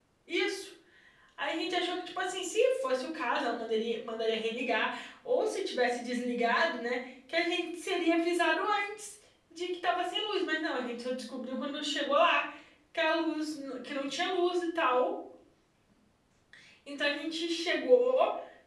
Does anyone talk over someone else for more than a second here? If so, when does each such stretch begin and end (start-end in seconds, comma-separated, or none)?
none